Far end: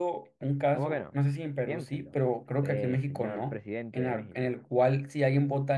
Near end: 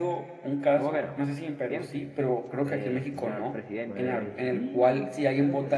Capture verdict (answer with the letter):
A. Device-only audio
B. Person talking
B